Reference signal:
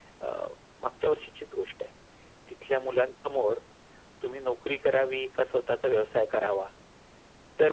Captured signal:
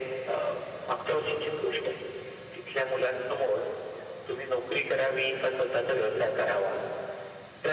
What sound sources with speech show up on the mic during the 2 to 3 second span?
echo only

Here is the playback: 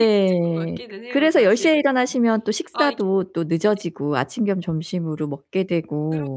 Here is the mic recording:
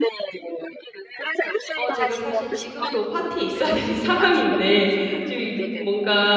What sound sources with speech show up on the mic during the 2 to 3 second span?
both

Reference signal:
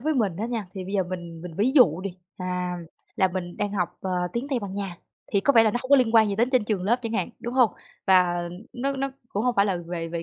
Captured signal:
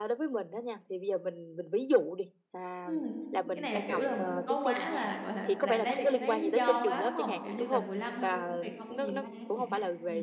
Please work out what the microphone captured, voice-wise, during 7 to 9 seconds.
both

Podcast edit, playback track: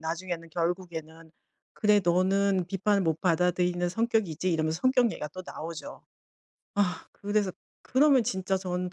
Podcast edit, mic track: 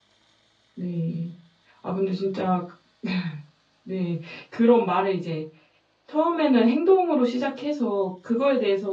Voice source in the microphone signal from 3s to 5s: user only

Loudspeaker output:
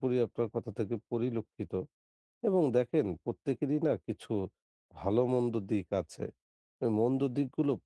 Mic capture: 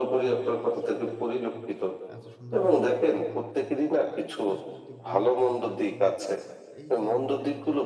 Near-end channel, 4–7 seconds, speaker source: both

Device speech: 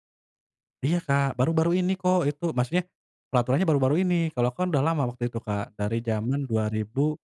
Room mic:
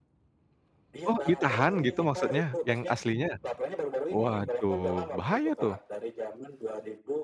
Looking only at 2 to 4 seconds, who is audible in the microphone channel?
both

